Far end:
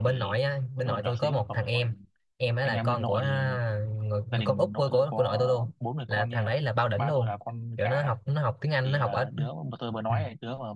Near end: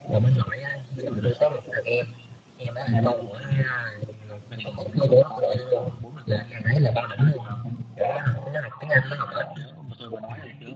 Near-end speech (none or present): none